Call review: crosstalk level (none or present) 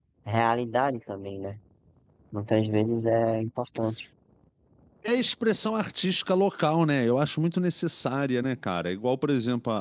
none